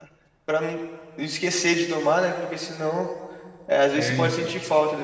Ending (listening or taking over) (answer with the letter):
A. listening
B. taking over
A